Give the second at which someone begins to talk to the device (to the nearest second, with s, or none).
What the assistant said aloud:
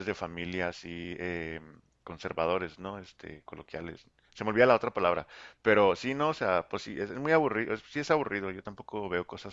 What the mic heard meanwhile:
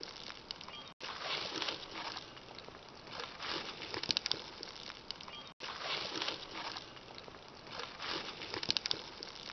none